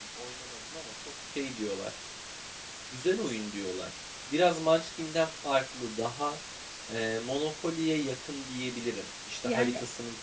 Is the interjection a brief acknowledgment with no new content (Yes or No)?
Yes